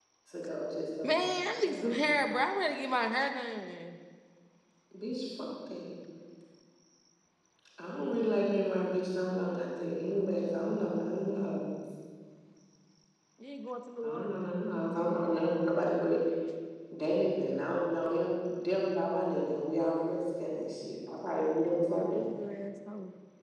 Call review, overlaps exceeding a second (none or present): none